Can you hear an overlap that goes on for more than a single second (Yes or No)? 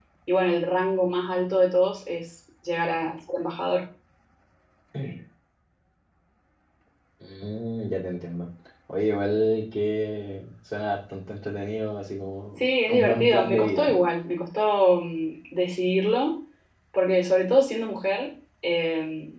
Yes